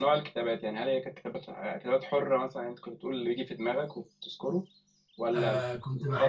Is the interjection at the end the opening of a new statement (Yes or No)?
Yes